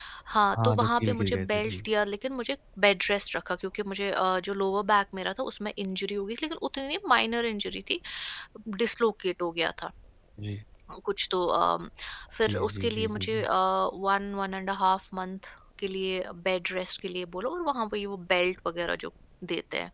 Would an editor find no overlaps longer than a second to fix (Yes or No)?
No